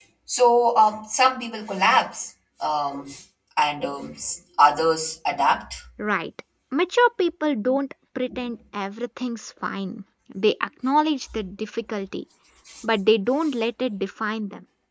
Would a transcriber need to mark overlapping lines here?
No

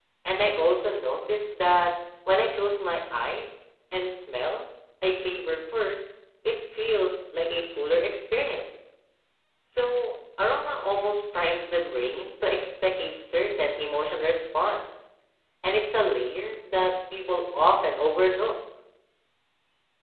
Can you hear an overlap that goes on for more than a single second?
No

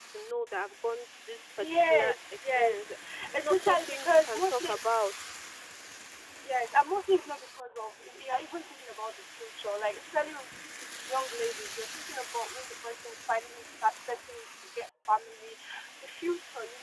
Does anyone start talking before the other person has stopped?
Yes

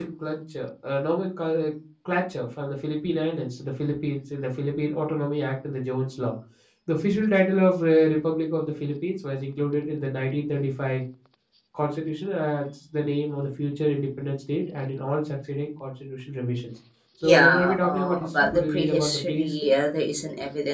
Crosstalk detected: Yes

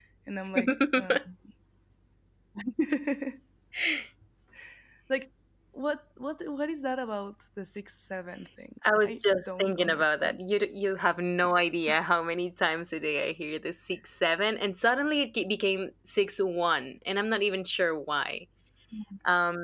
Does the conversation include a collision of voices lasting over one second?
Yes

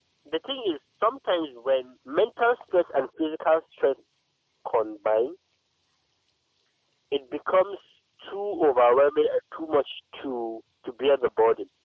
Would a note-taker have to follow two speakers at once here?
No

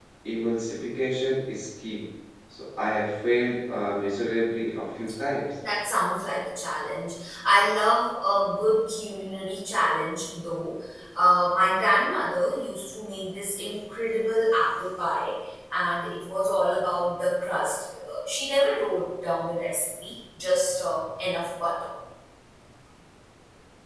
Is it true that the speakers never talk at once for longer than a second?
Yes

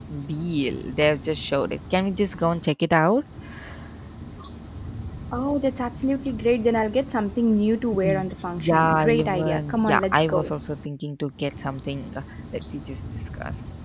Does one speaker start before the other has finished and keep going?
Yes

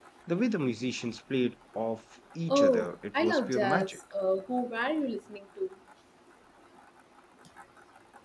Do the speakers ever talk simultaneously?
Yes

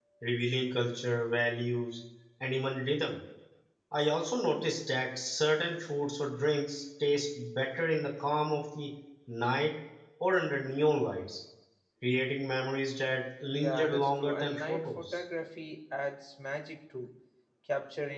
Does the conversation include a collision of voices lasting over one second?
Yes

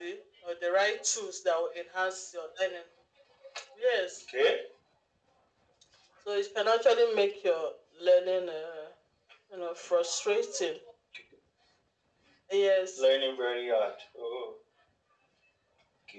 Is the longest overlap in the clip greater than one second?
No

